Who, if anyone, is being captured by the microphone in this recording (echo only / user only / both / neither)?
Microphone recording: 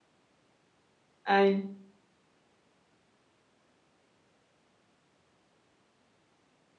user only